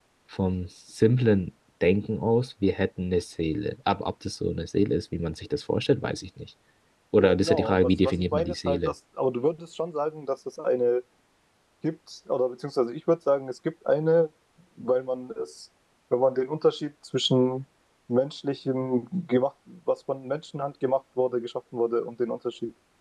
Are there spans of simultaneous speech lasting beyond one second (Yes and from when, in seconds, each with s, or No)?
Yes, from 7.2 s